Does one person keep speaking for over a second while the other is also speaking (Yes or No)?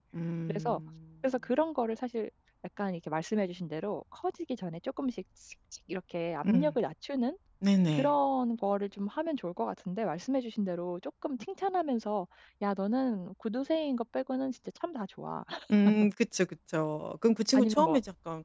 No